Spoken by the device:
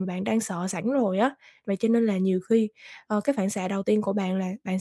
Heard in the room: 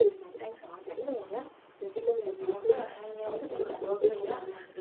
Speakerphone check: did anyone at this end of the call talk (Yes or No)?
Yes